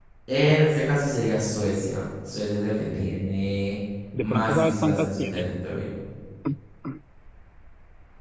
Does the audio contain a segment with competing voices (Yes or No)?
Yes